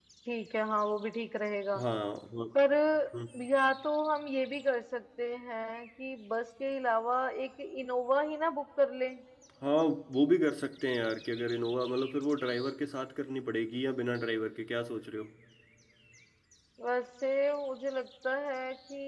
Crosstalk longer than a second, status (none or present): none